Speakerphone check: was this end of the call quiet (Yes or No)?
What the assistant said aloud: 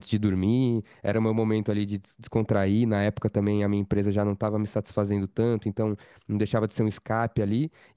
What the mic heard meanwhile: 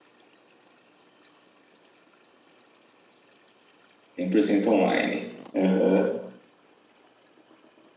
No